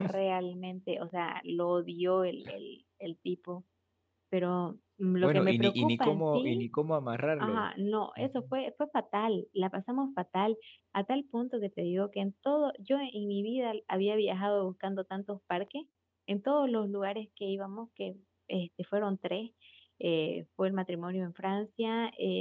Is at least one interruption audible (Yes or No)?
Yes